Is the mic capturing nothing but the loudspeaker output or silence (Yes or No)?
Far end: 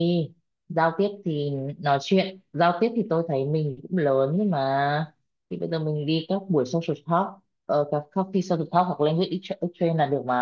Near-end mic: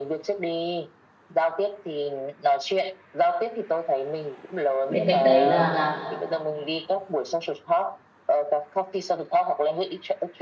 No